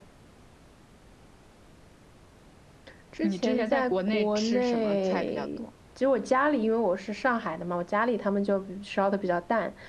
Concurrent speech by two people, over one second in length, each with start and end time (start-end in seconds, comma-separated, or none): 3.2-5.5